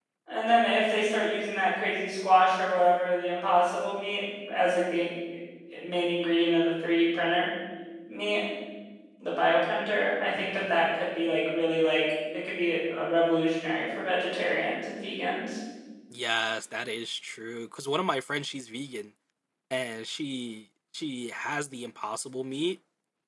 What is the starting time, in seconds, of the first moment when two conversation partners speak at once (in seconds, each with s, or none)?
none